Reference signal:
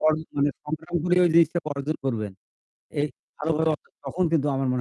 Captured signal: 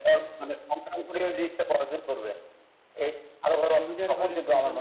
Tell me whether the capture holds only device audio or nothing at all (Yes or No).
No